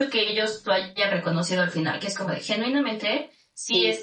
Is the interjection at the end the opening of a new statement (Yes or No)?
No